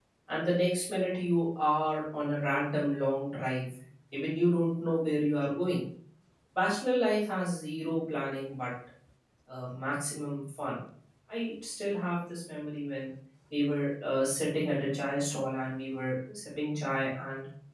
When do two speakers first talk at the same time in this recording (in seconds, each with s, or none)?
none